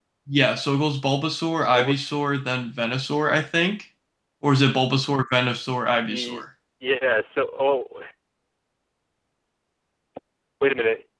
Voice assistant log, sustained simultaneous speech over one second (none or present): none